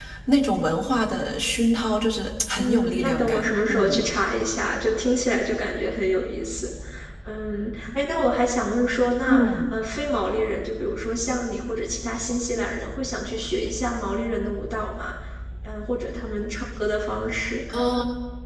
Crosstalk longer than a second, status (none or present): present